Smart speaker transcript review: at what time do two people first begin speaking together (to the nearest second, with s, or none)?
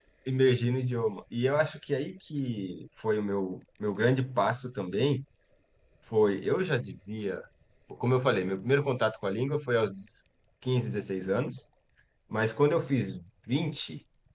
none